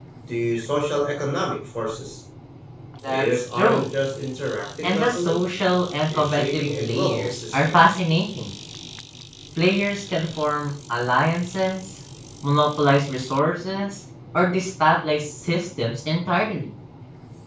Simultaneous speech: Yes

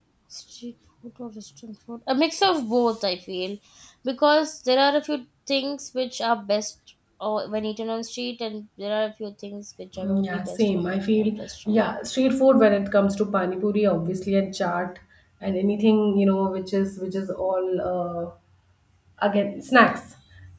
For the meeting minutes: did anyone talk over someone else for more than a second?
Yes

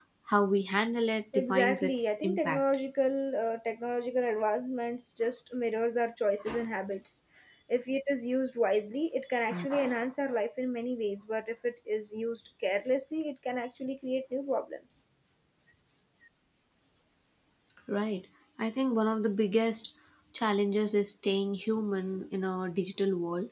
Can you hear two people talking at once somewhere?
Yes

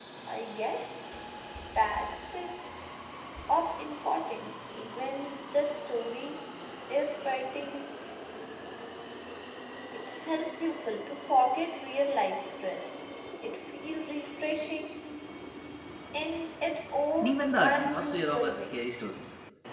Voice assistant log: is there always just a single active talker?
No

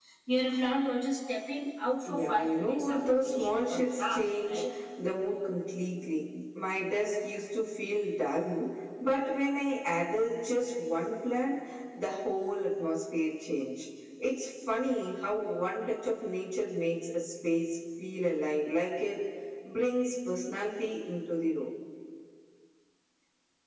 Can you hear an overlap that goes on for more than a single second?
Yes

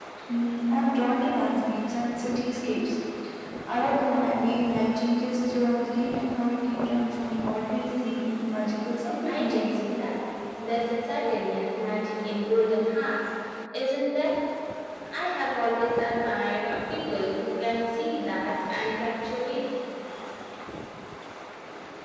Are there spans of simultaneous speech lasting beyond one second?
No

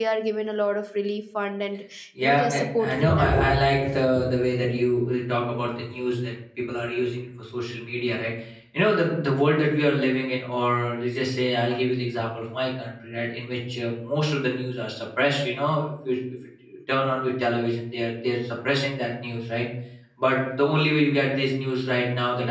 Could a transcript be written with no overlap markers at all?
No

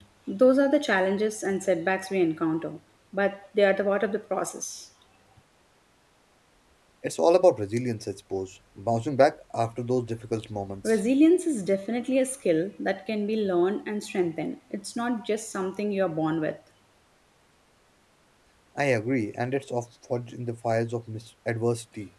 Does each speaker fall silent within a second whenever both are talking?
Yes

